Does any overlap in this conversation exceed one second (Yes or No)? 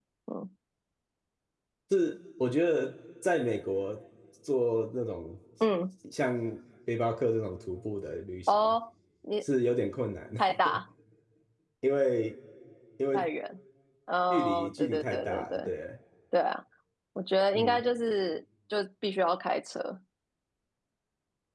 Yes